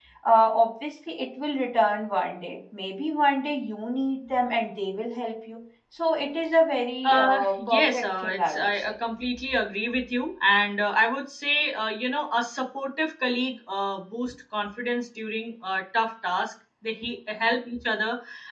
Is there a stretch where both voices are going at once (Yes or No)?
Yes